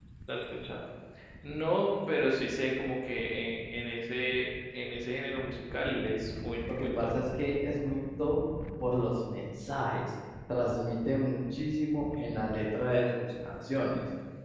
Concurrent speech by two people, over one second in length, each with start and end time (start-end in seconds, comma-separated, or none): none